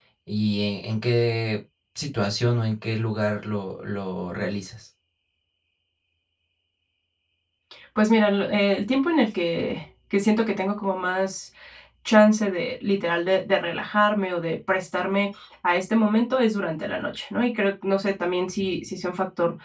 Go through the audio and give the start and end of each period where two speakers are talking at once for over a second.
none

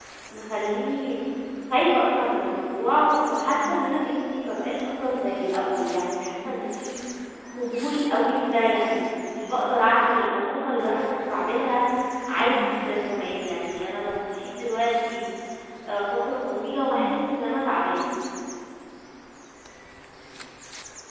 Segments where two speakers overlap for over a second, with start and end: none

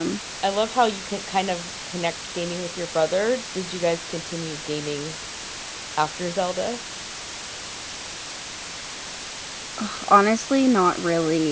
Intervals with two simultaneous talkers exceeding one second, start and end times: none

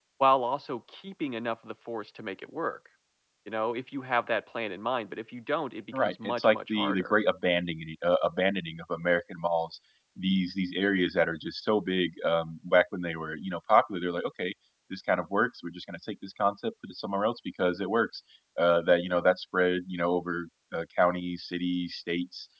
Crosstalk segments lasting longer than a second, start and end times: 5.9-7.1

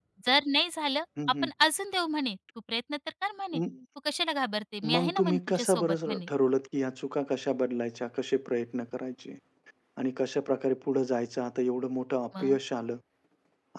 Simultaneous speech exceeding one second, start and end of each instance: 4.9-6.3

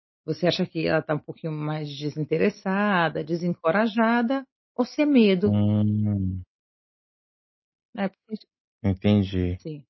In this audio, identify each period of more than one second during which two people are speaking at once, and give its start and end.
none

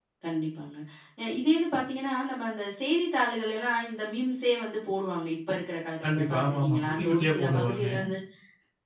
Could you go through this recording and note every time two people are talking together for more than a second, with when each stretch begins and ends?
6.0-7.9

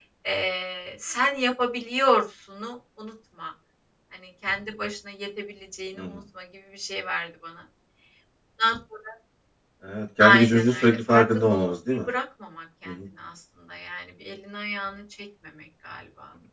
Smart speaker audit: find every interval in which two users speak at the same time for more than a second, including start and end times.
10.3-12.1

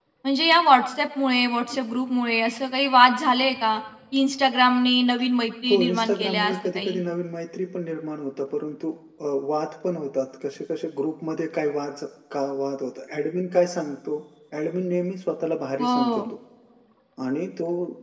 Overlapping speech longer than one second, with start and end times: 5.7-7.0

